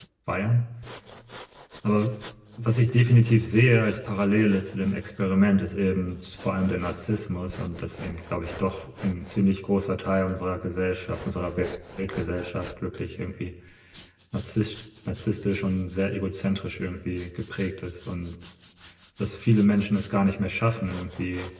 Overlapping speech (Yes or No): No